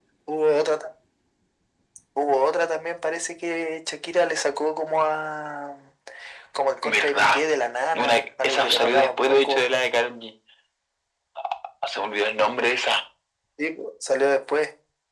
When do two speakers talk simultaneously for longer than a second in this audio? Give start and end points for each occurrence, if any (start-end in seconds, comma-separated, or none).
7.9-9.6